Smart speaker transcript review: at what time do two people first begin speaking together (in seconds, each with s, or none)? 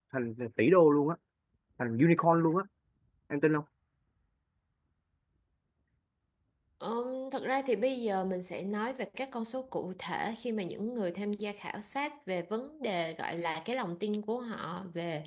none